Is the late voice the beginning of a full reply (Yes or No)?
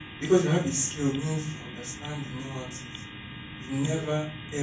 No